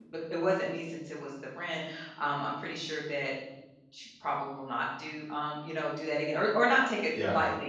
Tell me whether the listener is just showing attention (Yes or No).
Yes